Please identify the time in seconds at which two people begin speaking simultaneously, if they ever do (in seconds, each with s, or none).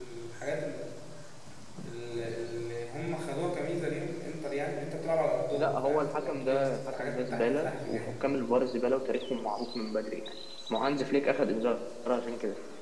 5.5 s